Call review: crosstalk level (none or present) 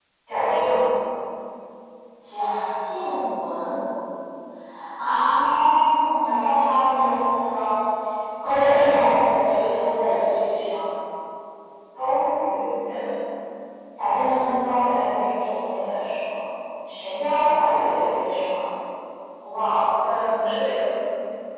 none